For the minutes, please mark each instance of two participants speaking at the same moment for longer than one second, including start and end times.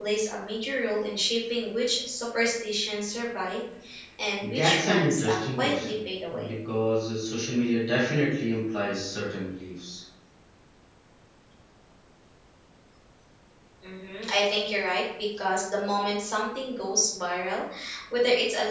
4.4-6.0

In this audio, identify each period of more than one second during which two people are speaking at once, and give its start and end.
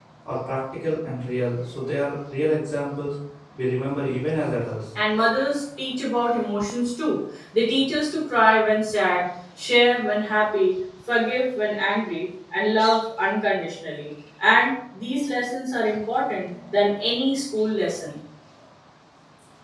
none

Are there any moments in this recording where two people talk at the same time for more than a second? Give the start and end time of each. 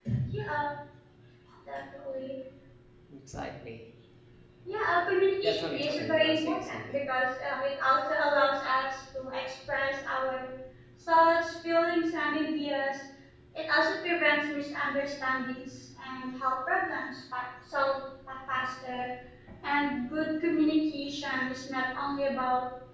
5.4-7.0

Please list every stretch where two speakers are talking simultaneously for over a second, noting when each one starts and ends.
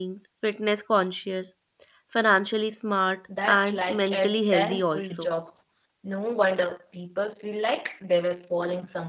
3.5-5.3

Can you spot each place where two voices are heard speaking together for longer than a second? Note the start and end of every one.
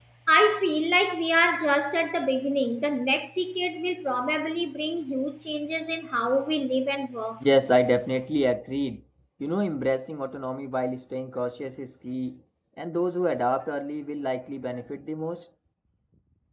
none

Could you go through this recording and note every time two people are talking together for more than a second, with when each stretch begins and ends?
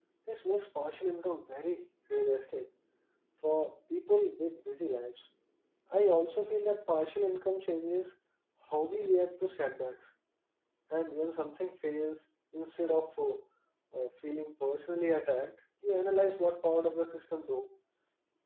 none

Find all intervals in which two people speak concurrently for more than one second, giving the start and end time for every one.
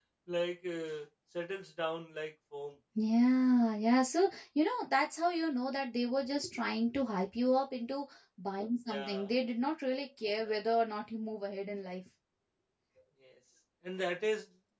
none

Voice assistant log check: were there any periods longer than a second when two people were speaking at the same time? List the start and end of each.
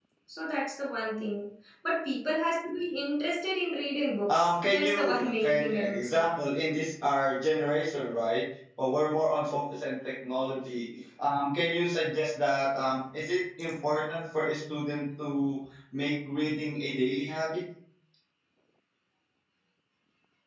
4.3-6.2

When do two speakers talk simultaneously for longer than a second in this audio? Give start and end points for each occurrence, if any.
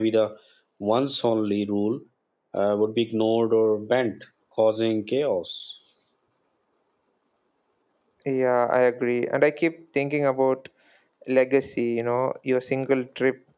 none

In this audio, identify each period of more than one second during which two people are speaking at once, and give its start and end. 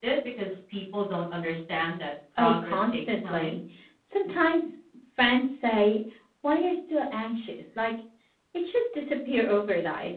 2.4-3.6

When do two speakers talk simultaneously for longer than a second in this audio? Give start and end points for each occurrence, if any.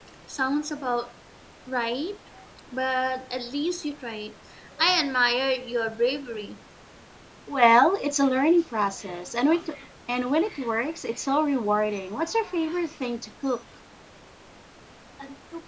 none

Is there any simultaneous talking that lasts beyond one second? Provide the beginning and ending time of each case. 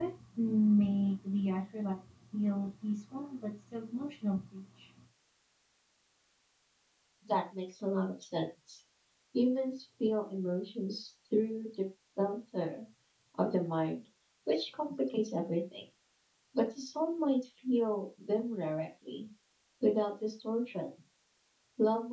none

